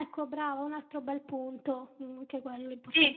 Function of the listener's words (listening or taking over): taking over